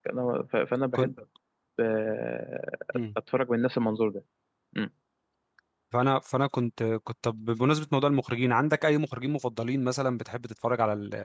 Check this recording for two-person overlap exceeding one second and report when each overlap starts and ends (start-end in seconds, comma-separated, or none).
none